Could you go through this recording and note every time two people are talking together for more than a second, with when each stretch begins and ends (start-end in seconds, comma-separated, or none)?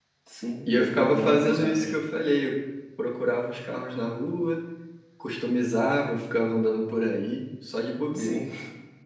0.7-1.9